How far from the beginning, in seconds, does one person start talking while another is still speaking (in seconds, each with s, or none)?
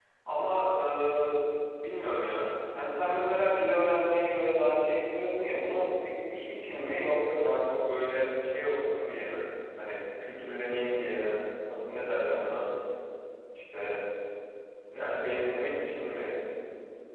none